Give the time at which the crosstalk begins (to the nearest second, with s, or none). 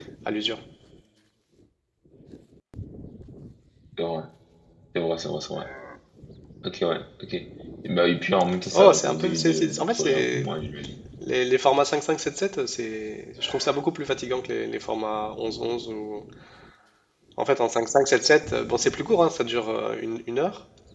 9 s